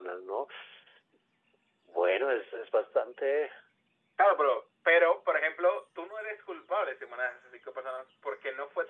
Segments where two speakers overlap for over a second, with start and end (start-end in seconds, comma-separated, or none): none